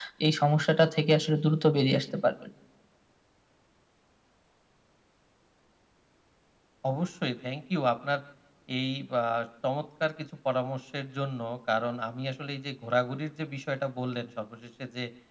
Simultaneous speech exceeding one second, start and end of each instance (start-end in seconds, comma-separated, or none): none